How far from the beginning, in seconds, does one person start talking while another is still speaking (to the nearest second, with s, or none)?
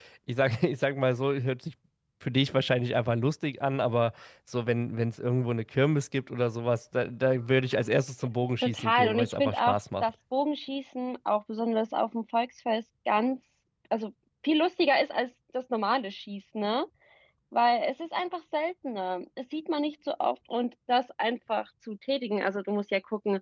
9 s